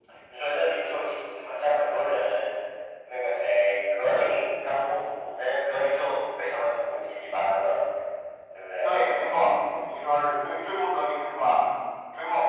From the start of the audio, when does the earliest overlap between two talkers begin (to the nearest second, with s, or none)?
none